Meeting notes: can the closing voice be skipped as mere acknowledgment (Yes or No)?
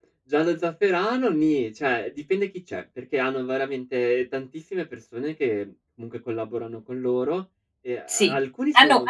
No